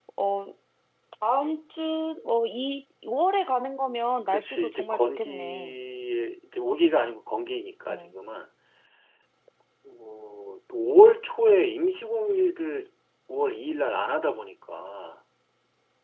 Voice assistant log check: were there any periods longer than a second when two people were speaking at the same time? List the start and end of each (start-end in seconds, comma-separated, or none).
4.3-5.8